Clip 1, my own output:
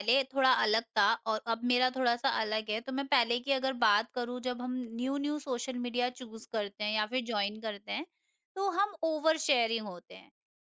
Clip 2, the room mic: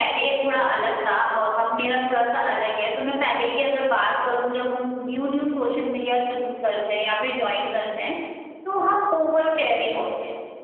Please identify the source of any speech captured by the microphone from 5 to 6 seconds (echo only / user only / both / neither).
echo only